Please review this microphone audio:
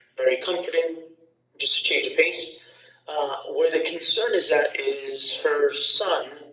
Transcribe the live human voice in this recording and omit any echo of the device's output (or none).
none